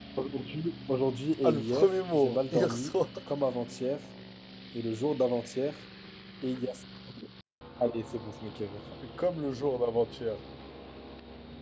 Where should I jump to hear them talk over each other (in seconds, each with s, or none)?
1.4 s